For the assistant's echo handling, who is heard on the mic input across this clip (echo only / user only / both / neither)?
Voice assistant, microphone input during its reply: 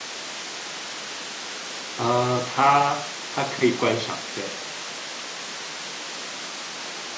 user only